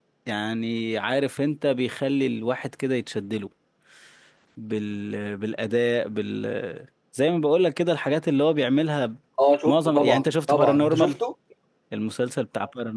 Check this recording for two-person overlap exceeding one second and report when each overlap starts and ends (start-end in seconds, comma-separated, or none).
9.7-11.2